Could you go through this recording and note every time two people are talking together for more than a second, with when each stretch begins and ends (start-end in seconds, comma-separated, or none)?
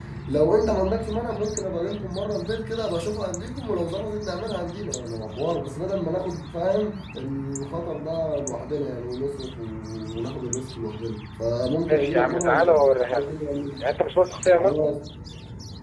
11.9-13.3